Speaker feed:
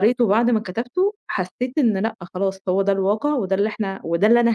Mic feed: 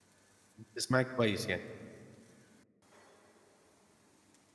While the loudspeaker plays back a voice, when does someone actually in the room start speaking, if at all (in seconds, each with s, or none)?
0.6 s